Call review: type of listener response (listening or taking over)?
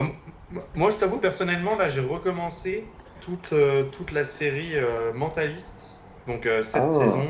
listening